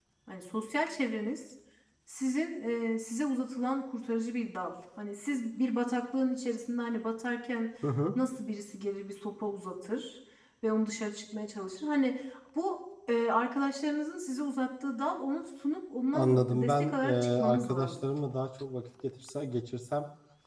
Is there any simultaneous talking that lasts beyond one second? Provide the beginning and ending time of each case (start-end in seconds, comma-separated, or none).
16.1-18.1